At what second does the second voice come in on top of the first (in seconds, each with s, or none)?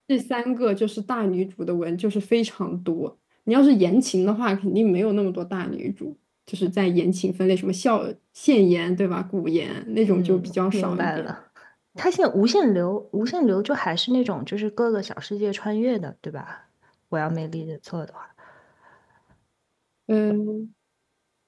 10.0 s